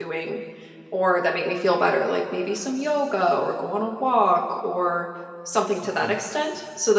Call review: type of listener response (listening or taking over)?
listening